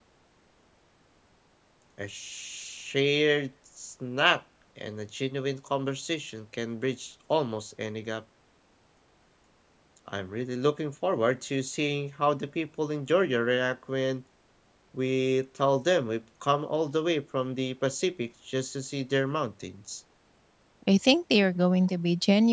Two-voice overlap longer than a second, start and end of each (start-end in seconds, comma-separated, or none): none